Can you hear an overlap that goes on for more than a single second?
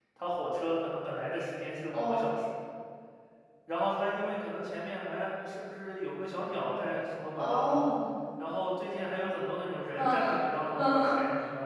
No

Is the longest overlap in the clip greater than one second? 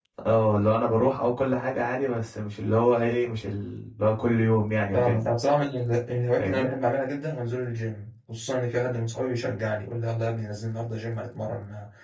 No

